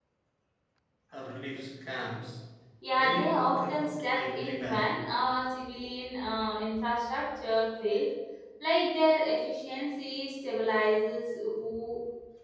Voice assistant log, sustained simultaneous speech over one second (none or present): present